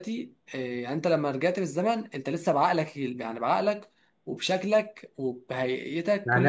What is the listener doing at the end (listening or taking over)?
taking over